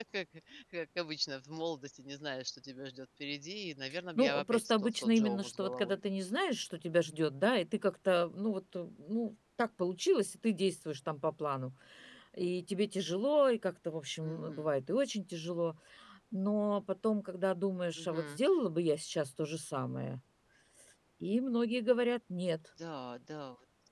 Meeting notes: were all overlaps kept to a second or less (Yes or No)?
No